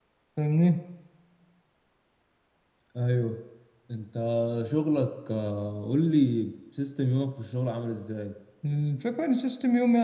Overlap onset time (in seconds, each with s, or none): none